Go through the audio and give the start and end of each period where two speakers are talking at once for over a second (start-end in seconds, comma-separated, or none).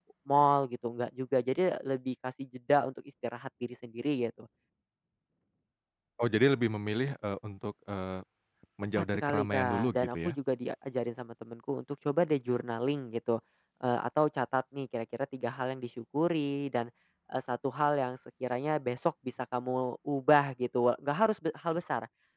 8.9-10.3